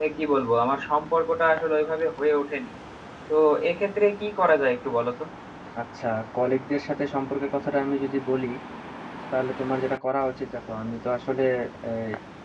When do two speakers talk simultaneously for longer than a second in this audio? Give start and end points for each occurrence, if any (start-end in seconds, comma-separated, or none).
none